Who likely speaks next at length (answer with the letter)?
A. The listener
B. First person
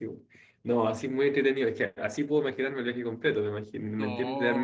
B